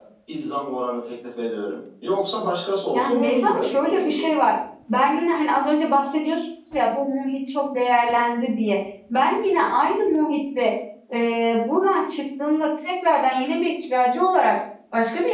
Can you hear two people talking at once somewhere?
Yes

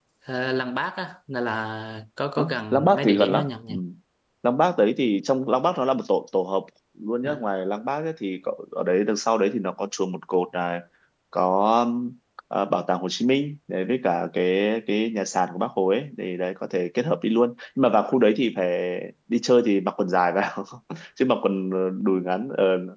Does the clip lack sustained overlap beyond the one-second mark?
No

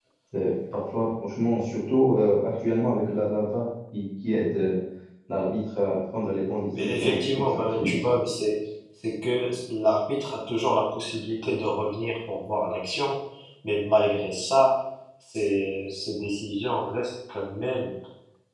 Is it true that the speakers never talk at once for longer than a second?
No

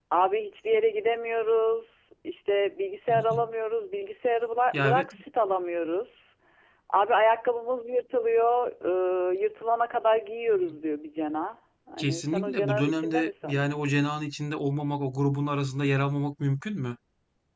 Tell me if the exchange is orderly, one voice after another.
No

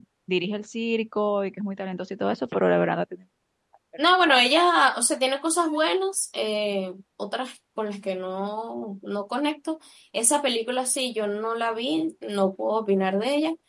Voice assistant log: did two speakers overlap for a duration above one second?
No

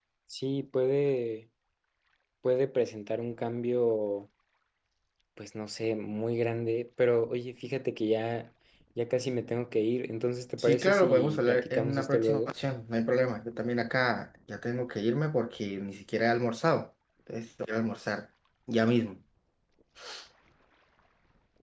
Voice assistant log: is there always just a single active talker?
No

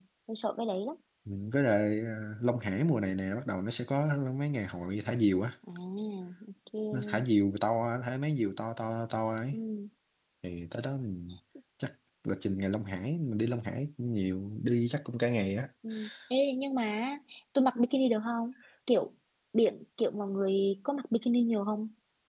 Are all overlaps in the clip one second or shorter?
Yes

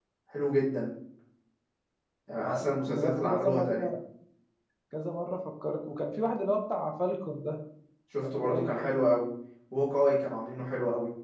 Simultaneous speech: Yes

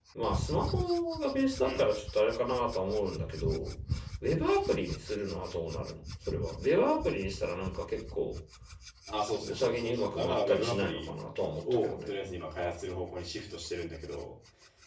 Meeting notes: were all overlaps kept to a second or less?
No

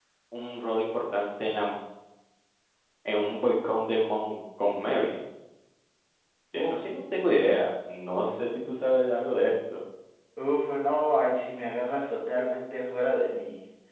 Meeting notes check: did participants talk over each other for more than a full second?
No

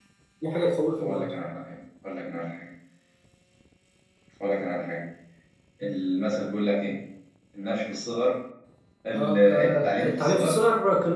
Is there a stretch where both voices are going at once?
Yes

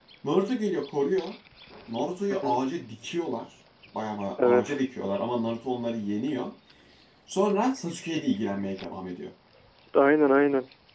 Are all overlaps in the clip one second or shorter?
Yes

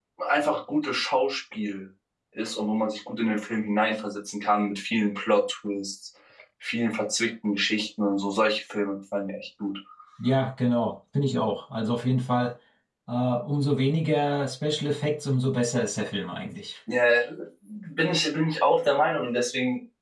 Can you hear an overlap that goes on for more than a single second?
No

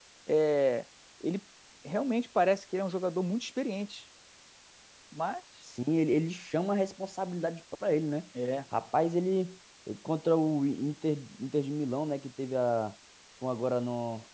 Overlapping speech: No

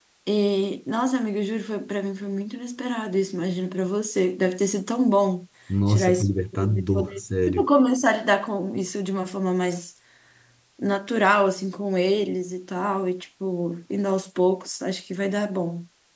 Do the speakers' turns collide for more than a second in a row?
Yes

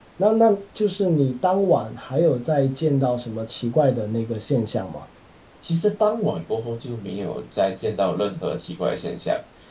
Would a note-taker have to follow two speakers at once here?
No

